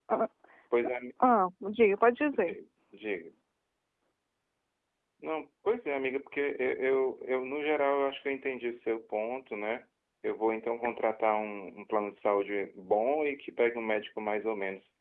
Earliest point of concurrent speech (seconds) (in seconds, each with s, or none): none